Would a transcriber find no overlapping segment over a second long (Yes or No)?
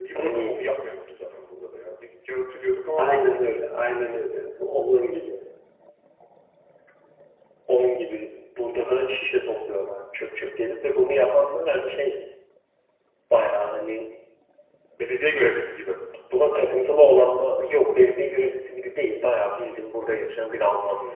Yes